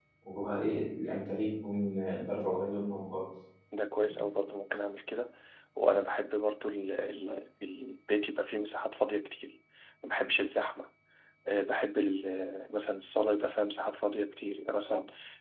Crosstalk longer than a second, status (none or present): none